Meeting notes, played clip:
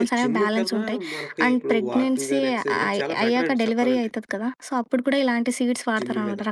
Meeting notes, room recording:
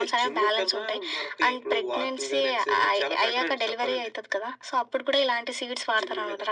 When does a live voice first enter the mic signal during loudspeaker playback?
none

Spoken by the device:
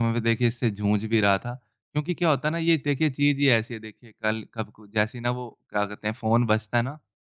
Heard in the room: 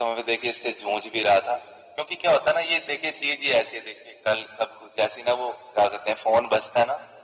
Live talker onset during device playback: none

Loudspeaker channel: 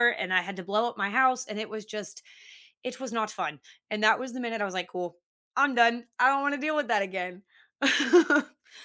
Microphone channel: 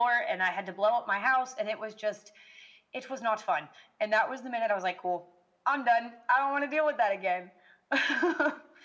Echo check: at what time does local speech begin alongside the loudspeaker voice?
none

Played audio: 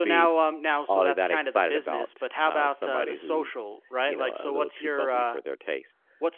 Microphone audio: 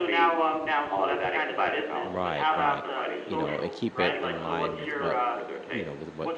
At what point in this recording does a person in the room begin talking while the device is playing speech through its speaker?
2.0 s

